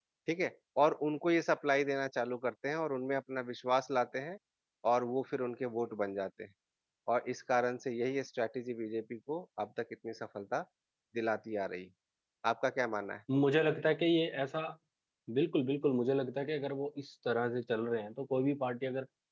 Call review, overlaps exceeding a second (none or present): none